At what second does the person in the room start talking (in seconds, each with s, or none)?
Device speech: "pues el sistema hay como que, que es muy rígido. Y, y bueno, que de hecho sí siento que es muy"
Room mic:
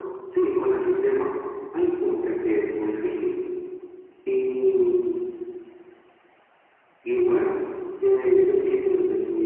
none